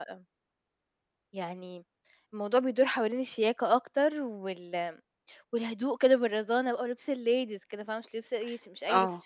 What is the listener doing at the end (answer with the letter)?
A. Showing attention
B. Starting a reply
B